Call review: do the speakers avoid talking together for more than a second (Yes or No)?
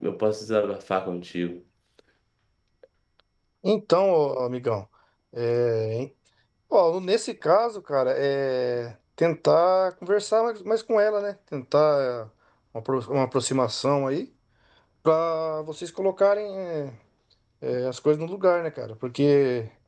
Yes